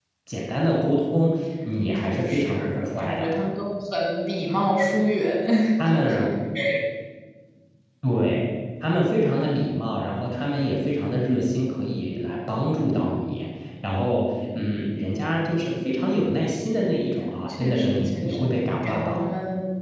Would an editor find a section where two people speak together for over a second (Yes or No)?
Yes